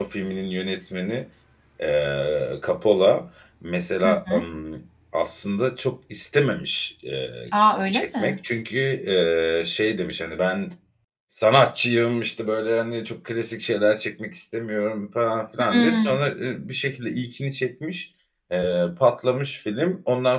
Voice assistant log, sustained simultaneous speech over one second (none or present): none